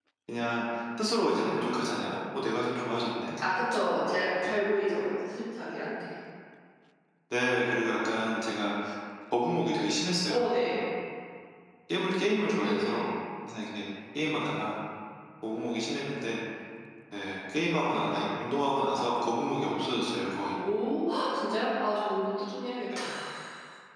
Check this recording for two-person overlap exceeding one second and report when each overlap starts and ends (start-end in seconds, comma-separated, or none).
none